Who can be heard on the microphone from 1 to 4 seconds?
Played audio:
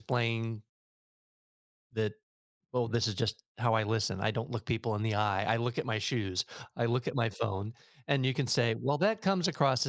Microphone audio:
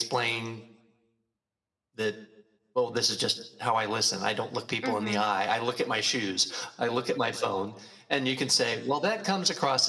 echo only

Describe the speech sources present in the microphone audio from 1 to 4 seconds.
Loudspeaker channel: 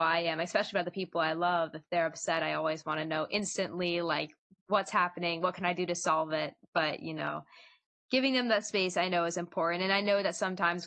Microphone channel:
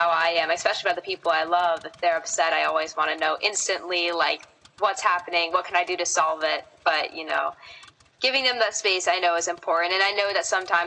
echo only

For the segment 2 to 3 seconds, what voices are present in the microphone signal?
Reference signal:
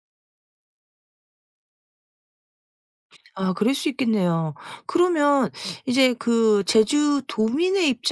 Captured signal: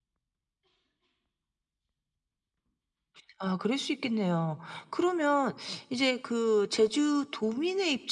neither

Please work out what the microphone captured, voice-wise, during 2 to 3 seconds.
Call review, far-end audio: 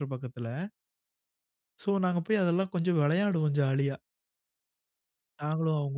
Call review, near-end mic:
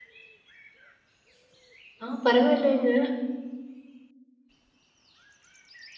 user only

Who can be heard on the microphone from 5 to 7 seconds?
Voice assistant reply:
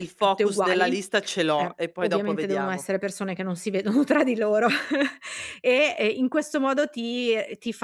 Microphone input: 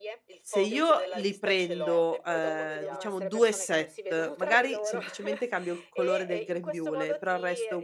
both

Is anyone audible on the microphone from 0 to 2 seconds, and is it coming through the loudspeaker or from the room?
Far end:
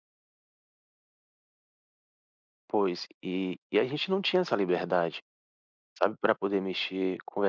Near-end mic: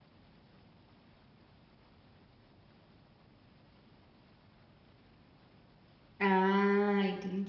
neither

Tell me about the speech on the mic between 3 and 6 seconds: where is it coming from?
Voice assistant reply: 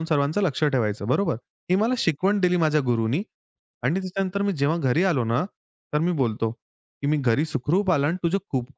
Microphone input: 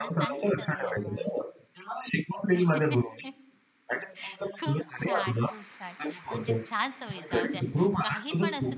both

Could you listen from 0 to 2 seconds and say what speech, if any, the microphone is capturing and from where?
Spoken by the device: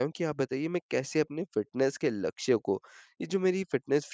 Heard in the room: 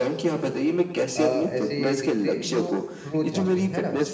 both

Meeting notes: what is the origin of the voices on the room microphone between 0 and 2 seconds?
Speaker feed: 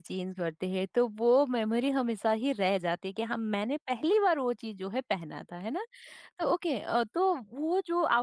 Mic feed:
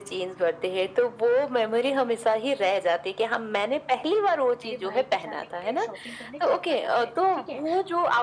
echo only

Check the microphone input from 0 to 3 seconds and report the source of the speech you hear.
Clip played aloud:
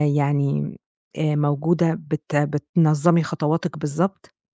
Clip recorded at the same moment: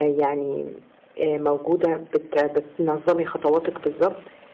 echo only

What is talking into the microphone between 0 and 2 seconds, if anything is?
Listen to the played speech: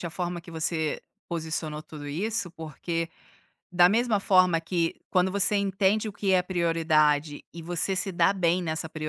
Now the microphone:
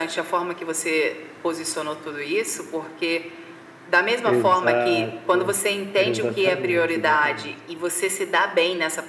echo only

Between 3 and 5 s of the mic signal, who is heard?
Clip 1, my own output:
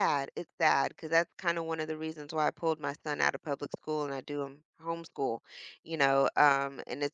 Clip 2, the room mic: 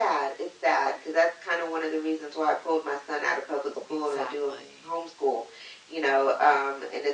both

